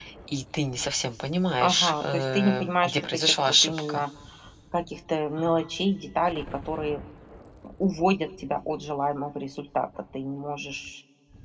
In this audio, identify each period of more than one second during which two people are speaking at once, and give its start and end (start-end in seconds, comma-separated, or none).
1.6-4.0